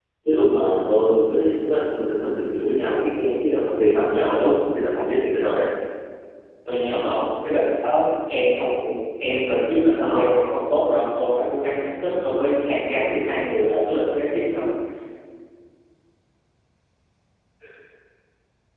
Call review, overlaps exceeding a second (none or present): none